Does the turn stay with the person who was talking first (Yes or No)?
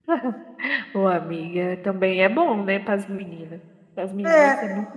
No